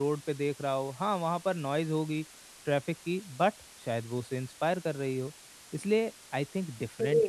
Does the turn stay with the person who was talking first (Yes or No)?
Yes